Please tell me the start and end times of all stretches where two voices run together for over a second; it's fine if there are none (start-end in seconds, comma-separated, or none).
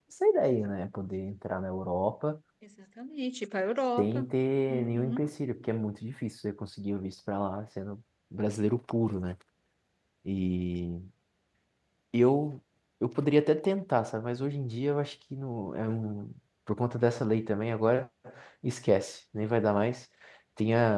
none